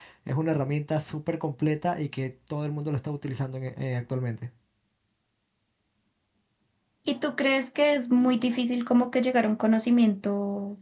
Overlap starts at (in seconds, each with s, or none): none